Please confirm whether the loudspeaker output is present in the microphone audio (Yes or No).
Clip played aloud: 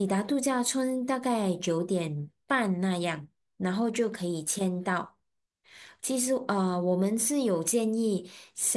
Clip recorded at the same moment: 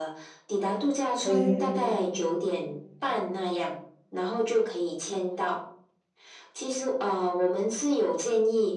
Yes